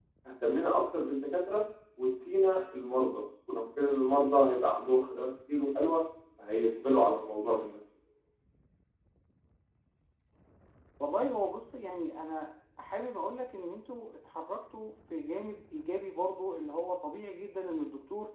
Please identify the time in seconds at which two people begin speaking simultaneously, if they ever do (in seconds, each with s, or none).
none